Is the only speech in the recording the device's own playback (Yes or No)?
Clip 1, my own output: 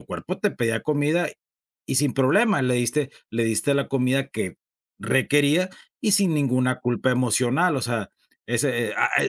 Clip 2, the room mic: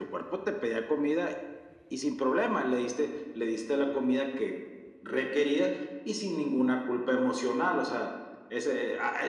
Yes